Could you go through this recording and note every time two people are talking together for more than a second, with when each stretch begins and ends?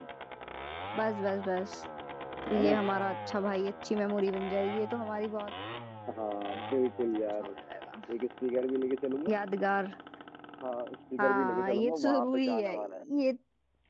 11.2-12.8

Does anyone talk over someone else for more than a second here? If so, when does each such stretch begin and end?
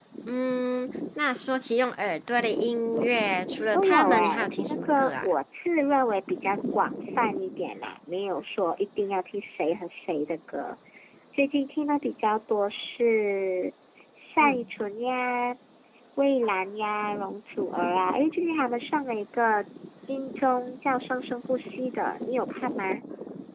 3.7-5.3

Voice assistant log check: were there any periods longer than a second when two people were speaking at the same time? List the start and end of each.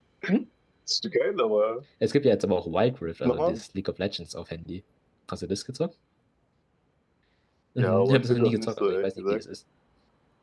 7.8-9.4

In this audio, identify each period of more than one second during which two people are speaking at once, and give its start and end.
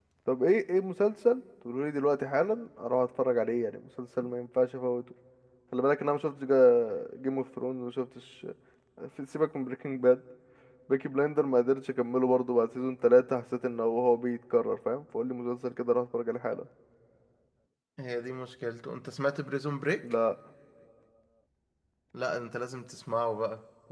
none

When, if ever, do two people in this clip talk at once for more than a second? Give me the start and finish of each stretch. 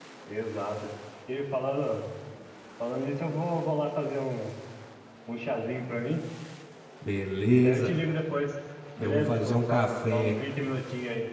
9.0-10.4

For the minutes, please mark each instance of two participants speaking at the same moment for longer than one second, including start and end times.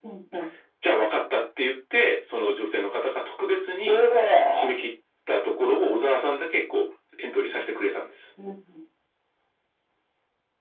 none

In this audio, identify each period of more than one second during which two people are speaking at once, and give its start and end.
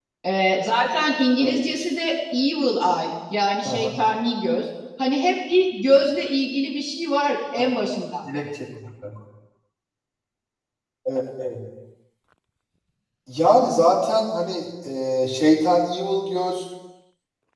none

